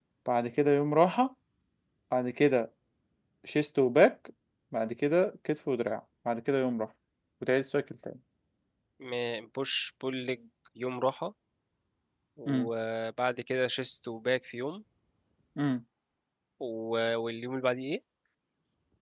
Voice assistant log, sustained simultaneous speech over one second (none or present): none